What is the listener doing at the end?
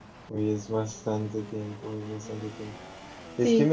listening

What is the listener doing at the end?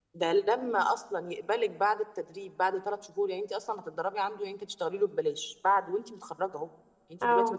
listening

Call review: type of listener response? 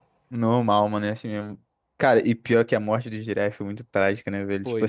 listening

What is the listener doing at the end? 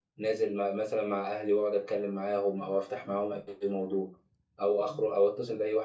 listening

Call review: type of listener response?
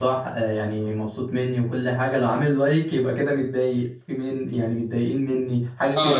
taking over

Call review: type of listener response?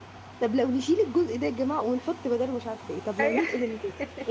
listening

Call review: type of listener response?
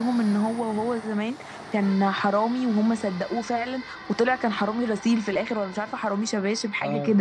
taking over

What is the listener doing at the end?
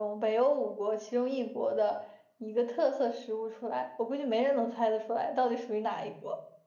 taking over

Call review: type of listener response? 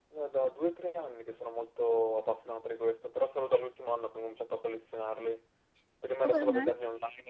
listening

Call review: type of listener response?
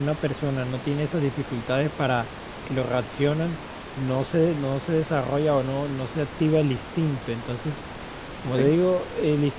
listening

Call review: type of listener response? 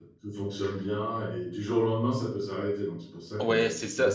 taking over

